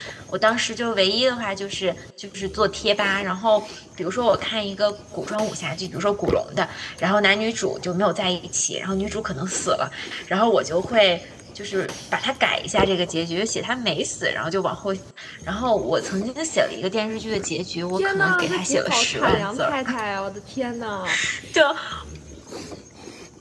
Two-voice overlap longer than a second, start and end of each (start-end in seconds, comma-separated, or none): 17.9-19.8